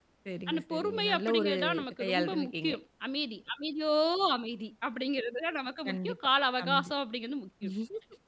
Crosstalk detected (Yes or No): Yes